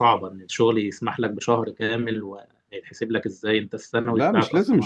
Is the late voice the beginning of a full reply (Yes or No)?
Yes